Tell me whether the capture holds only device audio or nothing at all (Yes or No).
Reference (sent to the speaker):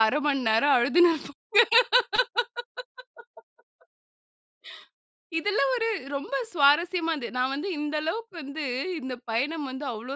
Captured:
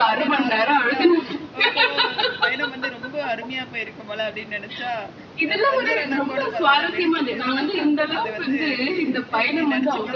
No